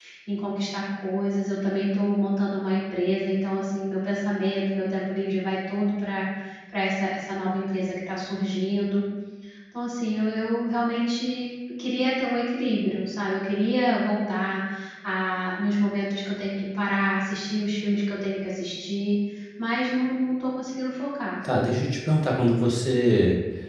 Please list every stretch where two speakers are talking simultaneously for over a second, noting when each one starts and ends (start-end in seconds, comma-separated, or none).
none